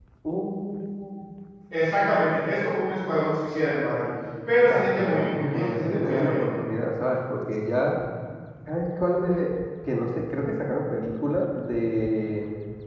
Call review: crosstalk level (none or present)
present